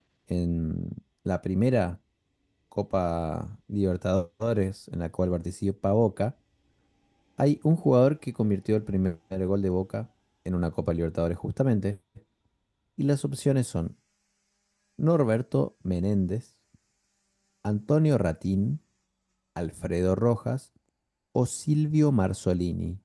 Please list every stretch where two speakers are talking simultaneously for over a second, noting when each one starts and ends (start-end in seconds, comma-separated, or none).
none